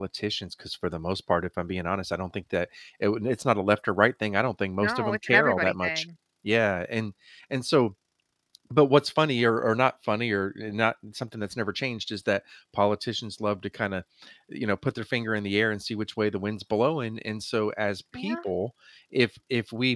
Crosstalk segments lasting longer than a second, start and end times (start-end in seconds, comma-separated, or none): 4.8-6.0